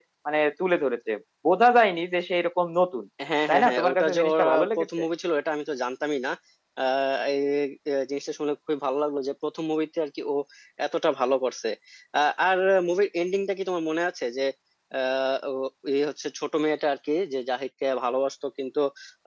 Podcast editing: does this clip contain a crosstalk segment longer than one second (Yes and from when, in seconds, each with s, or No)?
Yes, from 3.5 s